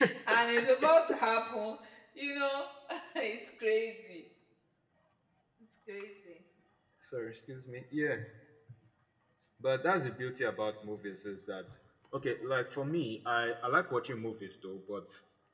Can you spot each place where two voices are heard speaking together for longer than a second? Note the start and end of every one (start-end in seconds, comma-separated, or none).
none